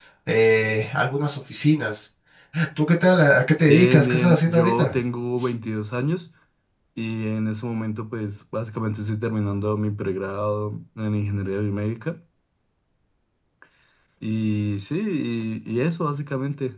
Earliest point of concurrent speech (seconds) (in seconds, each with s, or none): 3.7 s